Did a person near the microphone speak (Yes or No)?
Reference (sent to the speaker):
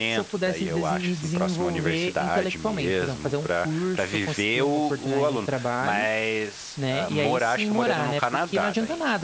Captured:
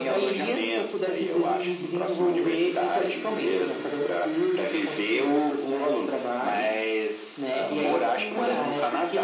No